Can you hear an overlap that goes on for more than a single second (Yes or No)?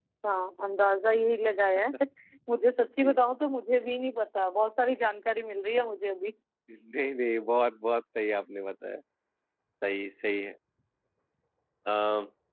No